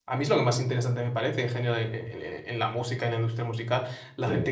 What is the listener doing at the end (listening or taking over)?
listening